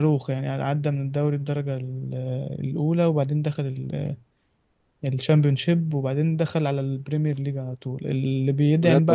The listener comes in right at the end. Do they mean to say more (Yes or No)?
No